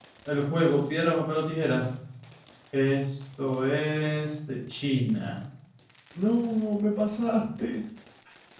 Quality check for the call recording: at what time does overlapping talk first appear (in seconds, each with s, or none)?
none